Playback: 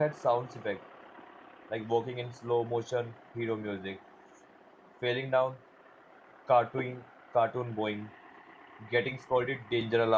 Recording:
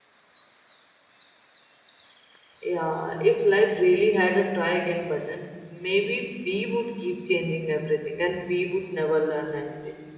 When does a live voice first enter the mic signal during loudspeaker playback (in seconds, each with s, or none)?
2.6 s